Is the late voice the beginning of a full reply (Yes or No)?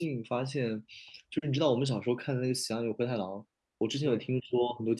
No